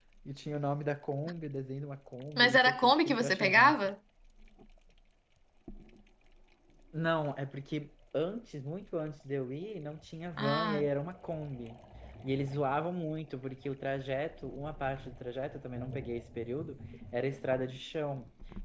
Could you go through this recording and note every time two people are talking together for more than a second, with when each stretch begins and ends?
2.4-3.9

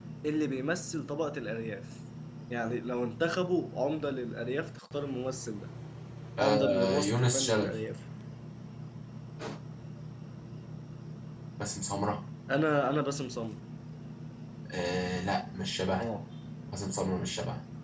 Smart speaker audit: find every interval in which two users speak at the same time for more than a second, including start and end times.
6.4-7.7

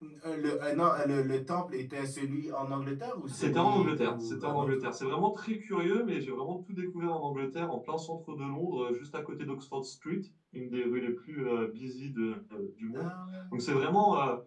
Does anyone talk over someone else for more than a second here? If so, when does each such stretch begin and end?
3.3-4.7

